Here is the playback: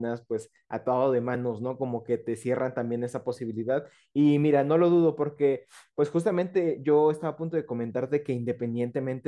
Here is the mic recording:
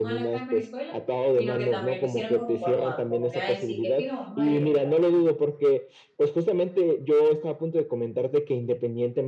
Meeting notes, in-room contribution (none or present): present